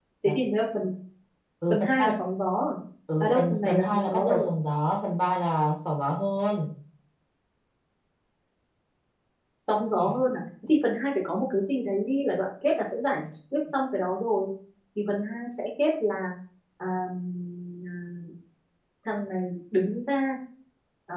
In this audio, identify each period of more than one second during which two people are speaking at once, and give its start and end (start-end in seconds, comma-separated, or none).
3.2-4.5